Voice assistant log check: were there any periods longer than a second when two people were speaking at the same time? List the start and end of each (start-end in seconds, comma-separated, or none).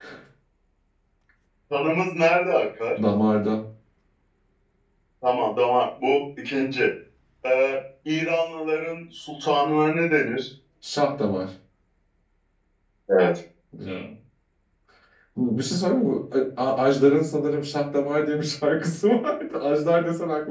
none